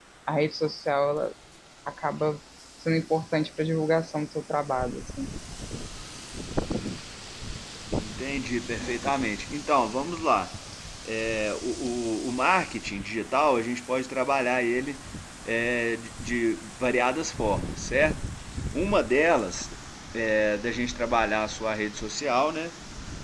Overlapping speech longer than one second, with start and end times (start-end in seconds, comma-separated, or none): none